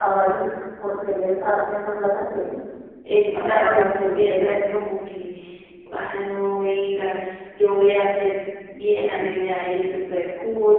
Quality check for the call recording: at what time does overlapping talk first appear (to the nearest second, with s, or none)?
3 s